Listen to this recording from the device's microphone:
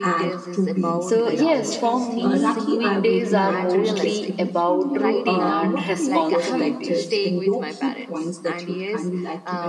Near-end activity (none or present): present